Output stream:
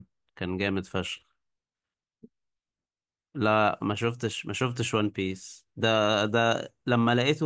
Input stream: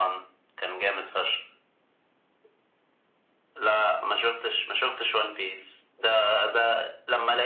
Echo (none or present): present